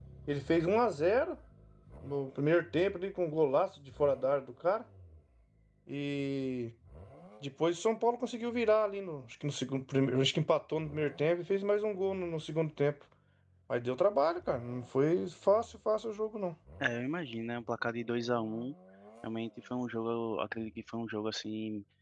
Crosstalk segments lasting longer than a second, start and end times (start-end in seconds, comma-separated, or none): none